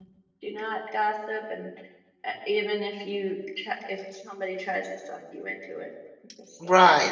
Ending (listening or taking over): taking over